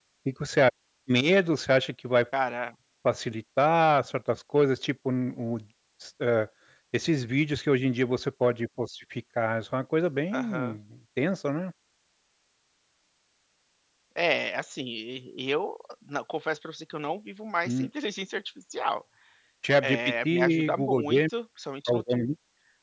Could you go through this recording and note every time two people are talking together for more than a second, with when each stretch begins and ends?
19.8-21.2

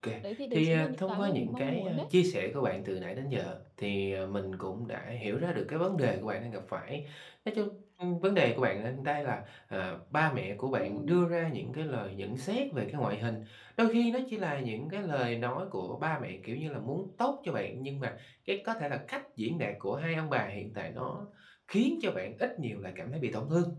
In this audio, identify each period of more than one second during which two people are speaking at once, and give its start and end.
0.5-2.0

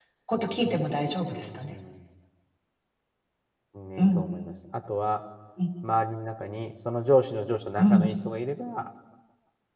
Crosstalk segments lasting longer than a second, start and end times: none

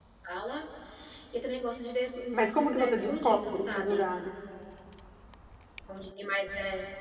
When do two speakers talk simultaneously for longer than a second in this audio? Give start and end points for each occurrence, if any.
2.4-4.1

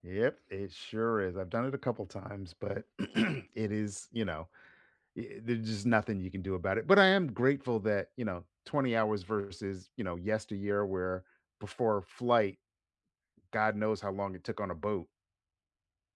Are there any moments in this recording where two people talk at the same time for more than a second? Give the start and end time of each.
none

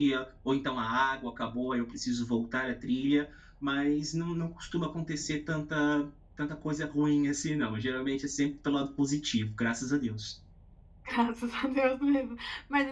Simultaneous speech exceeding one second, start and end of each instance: none

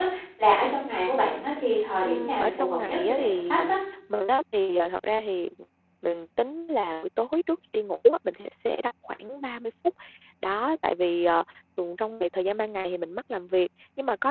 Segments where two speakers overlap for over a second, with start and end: 2.0-3.6

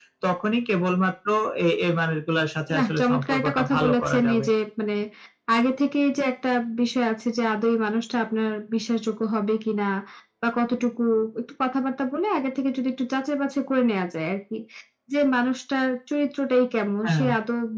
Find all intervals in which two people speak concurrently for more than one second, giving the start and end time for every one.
2.8-4.5

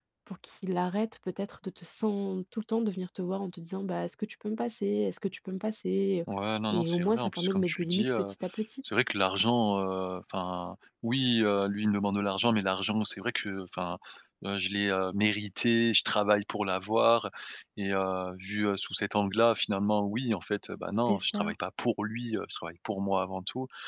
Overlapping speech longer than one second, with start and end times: 6.7-8.3

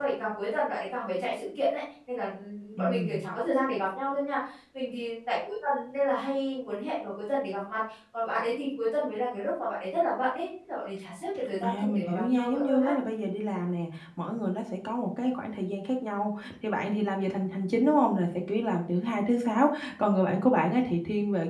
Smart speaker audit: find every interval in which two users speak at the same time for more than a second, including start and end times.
11.6-12.9

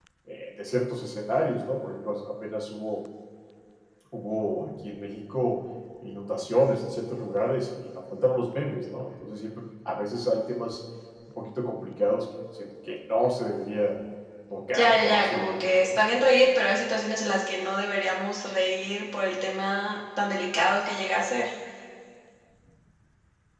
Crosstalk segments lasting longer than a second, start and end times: 14.7-15.9

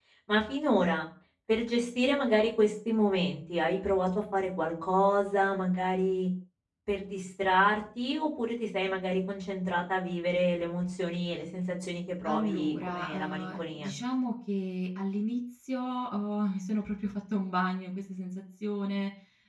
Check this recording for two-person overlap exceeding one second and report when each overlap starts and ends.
12.2-13.9

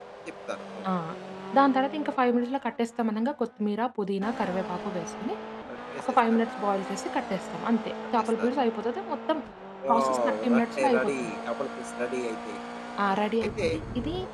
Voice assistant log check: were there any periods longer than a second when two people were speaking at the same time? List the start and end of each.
9.9-11.3

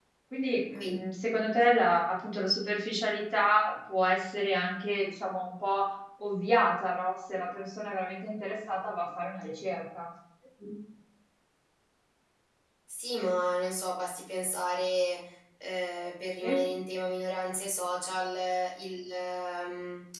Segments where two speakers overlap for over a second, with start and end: none

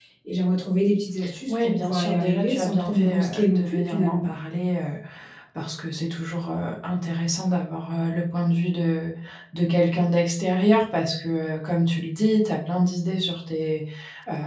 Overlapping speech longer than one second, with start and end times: 1.8-4.3

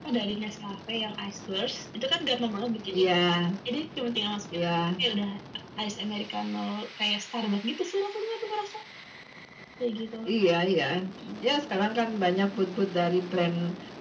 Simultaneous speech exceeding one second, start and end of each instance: none

